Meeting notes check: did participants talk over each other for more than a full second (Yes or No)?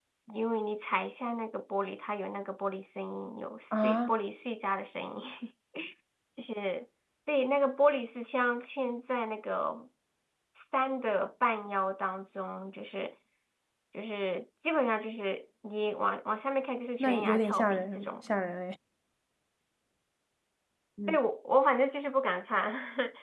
Yes